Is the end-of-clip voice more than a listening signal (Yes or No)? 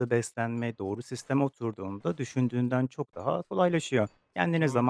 No